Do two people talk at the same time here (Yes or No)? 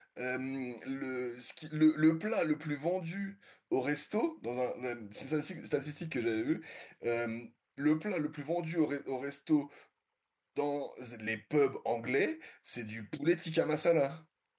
No